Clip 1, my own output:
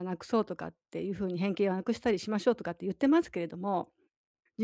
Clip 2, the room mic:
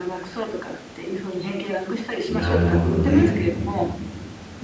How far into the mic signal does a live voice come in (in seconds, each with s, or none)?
2.3 s